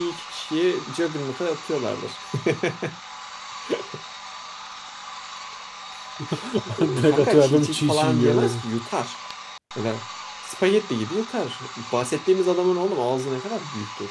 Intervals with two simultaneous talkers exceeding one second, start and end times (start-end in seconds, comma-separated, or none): 7.0-8.6